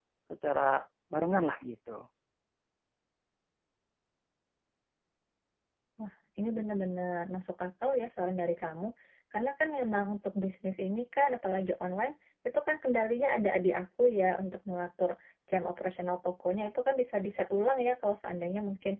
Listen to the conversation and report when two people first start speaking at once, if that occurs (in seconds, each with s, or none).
none